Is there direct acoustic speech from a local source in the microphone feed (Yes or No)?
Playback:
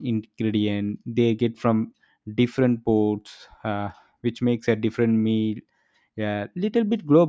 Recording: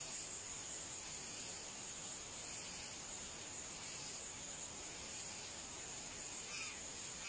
No